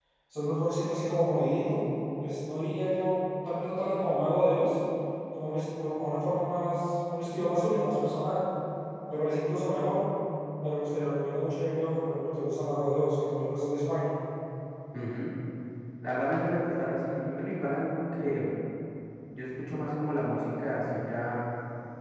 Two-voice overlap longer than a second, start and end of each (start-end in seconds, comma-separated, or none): none